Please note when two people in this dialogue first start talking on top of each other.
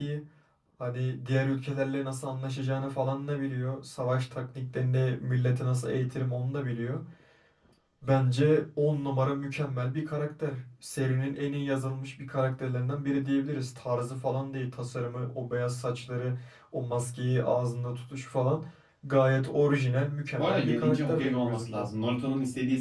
20.3 s

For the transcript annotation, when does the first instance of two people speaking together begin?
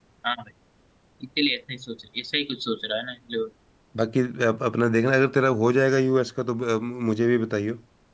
none

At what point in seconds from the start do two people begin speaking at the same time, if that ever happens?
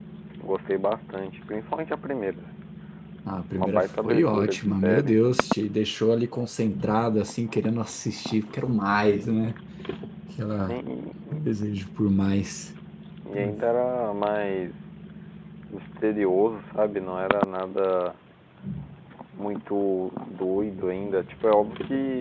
3.5 s

